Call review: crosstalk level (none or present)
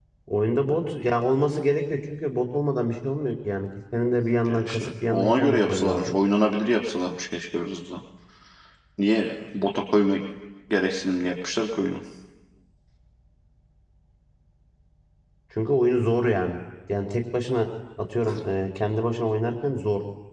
present